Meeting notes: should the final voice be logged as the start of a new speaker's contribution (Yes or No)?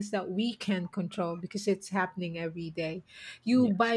No